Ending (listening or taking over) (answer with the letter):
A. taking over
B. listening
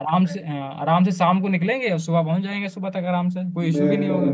A